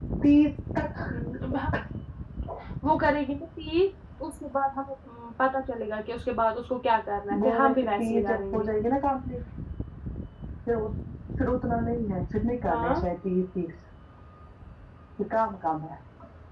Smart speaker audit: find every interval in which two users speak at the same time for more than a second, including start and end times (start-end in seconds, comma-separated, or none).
7.4-8.7